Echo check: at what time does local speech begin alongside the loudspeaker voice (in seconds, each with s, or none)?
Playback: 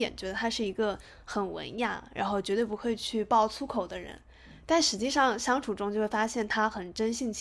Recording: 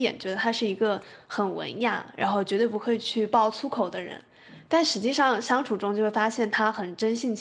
none